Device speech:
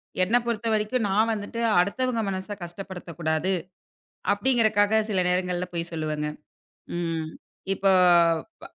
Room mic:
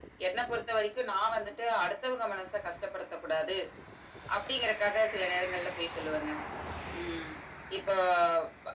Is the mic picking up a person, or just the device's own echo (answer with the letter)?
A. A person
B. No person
B